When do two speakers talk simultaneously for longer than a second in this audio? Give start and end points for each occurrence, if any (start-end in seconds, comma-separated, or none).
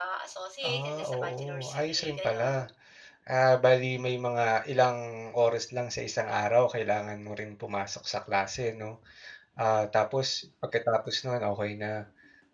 0.7-2.5